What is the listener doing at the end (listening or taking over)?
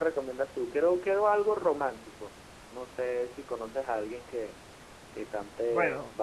taking over